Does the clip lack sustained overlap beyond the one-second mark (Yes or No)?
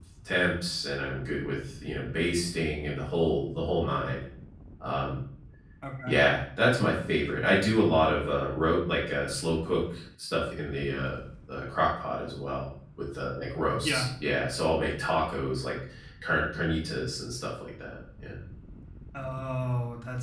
Yes